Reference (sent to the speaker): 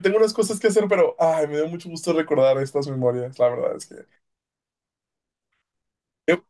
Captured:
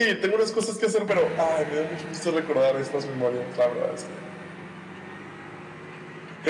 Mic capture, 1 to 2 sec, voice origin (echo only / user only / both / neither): echo only